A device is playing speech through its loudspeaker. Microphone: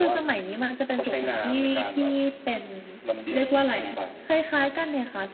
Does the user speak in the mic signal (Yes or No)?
No